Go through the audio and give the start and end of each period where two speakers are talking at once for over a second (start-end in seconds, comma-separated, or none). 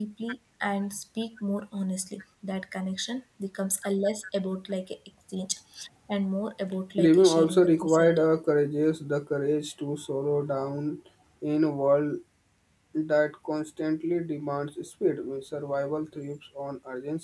7.0-8.2